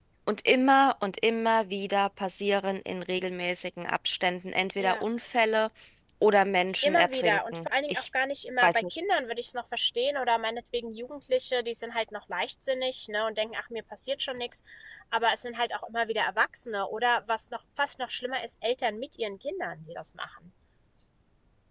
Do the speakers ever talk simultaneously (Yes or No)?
Yes